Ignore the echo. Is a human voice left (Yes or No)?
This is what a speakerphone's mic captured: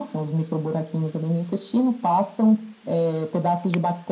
No